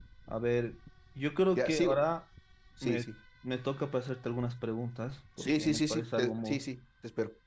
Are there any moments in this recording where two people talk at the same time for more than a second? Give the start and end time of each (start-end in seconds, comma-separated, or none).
5.4-6.6